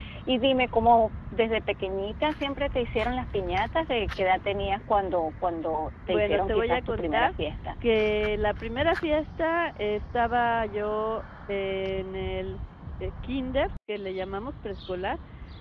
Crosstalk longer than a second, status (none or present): present